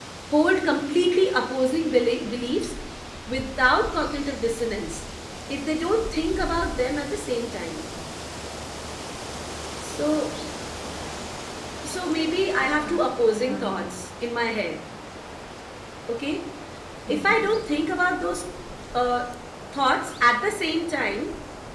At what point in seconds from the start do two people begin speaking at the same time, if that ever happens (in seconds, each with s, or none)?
12.6 s